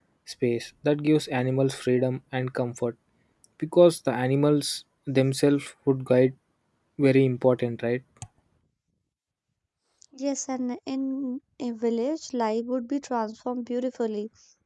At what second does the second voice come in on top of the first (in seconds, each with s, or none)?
none